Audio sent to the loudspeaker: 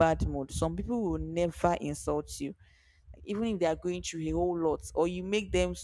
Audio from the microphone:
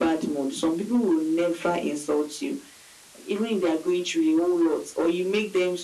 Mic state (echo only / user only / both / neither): echo only